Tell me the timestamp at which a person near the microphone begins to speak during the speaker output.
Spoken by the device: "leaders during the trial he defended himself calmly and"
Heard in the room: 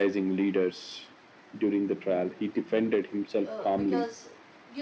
3 s

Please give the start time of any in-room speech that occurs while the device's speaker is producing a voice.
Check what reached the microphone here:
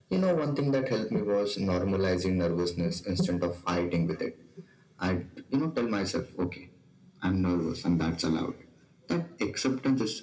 none

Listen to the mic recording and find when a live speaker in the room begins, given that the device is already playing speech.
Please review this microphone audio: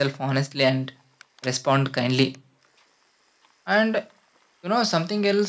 none

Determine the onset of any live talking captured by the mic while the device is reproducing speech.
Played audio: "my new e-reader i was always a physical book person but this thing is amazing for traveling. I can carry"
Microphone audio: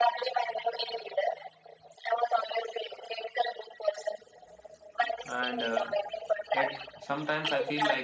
5 s

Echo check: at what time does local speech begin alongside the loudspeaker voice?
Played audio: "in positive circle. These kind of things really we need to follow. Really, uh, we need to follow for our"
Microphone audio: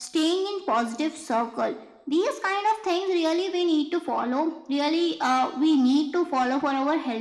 none

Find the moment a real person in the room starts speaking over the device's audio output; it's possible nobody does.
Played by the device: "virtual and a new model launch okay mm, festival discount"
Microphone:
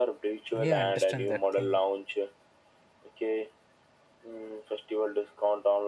1 s

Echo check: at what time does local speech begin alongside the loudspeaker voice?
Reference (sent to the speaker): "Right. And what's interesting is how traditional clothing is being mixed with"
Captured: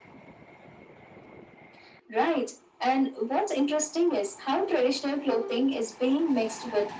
none

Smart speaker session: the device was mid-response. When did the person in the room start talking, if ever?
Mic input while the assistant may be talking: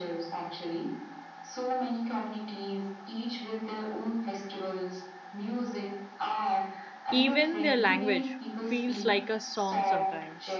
7 s

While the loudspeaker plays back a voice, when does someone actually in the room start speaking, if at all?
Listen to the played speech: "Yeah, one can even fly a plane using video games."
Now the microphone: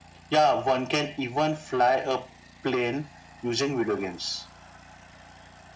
none

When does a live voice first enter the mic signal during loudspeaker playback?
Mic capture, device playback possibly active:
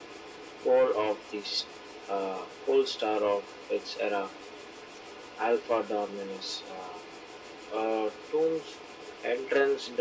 none

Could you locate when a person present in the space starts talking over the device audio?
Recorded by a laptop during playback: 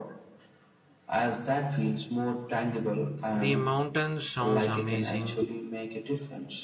3 s

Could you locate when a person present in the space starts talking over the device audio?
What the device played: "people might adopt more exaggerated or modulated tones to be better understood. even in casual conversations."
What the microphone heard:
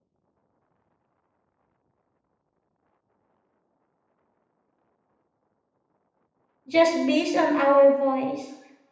7 s

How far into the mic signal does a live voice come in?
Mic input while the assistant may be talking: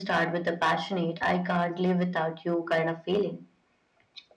none

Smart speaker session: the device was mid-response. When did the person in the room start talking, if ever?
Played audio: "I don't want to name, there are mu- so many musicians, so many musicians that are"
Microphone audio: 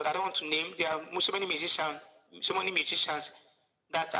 none

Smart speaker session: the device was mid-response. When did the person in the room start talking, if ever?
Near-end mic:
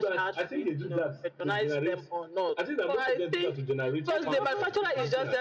4 s

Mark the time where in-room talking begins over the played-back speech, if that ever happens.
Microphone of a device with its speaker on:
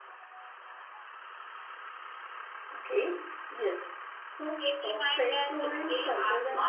5 s

